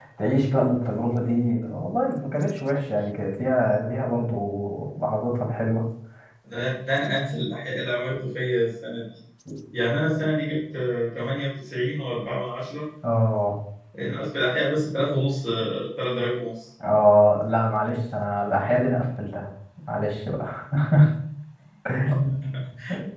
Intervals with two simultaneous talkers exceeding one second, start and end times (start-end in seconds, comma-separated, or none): none